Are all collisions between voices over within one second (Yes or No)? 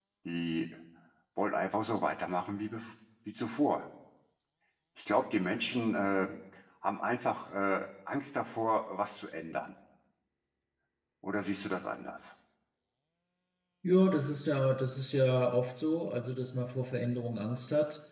Yes